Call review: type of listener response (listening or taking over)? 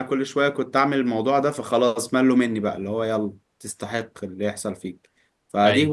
listening